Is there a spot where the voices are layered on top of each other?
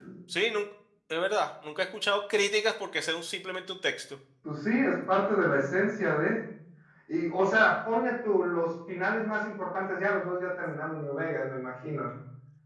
No

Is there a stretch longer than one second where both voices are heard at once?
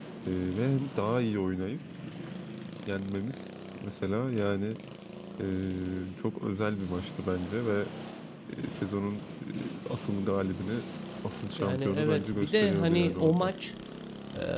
Yes, from 11.6 s

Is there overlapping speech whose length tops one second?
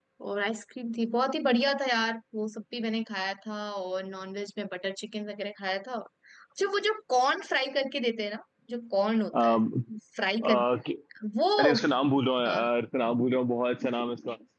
No

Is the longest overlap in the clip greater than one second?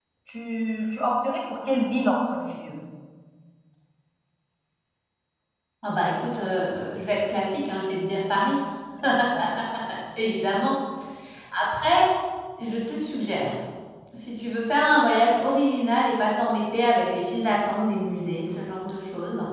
No

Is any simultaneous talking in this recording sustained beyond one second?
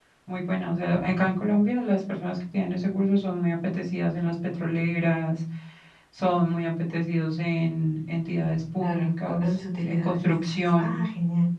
Yes, from 8.8 s

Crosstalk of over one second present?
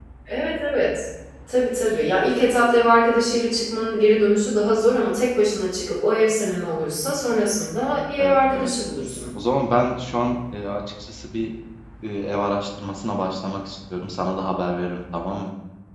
No

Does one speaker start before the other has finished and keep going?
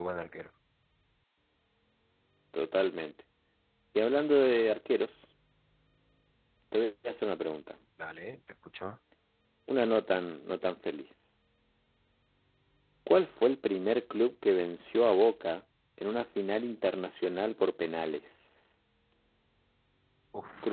No

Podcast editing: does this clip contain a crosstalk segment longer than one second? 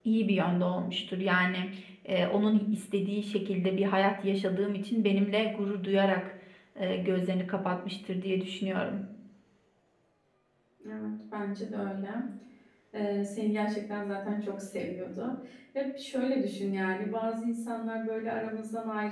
No

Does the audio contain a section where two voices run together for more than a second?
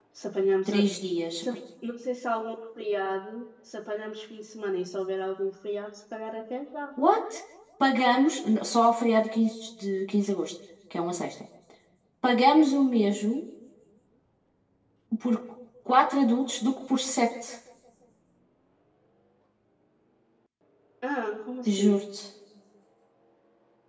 No

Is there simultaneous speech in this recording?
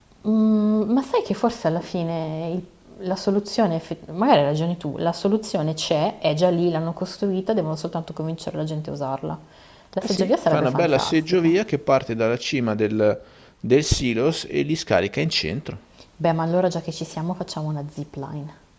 Yes, from 10.0 s

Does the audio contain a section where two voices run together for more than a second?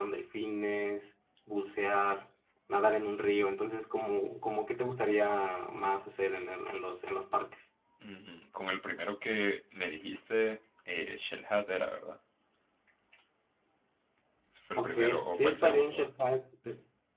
Yes, from 14.8 s

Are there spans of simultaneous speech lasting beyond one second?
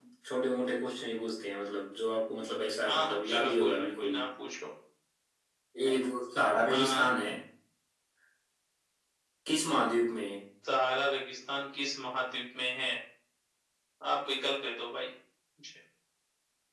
Yes, from 2.9 s

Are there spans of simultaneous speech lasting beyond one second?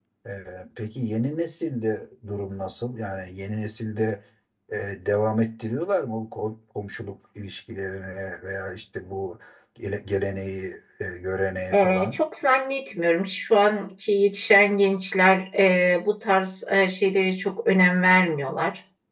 No

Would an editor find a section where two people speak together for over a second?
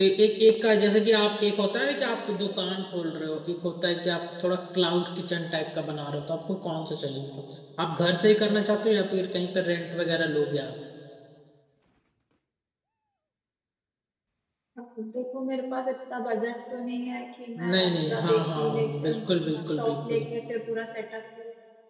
Yes, from 17.6 s

